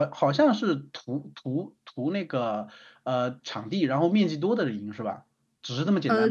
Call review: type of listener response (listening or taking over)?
taking over